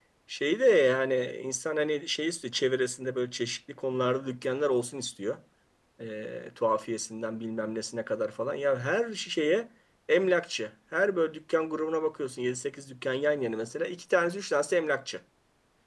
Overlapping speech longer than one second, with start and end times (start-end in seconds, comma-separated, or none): none